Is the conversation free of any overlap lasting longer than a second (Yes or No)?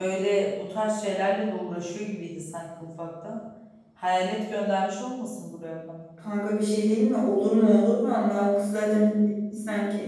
Yes